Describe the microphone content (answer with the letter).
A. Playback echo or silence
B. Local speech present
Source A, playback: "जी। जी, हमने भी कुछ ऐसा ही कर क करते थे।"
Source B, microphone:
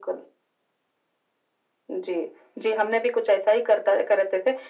A